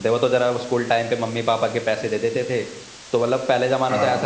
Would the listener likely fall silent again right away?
Yes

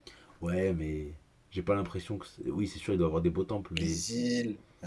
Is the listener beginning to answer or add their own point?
Yes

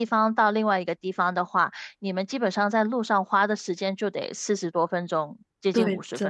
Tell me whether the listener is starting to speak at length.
Yes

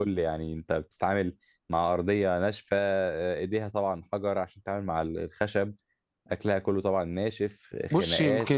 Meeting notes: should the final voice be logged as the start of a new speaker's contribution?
Yes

